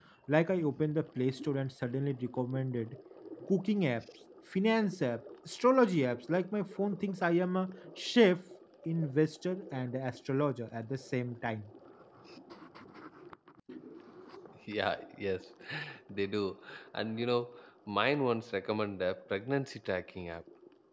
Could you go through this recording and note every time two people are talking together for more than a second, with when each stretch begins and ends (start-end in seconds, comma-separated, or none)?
none